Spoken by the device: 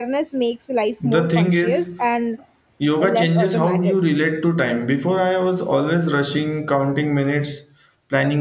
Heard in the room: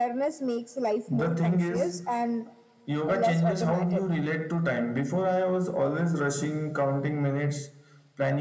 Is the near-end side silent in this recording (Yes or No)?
Yes